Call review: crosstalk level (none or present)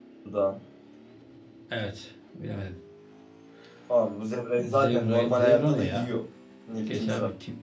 present